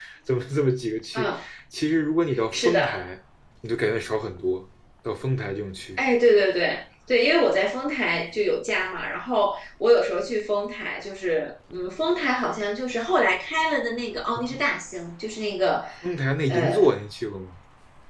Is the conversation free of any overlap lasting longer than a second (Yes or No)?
Yes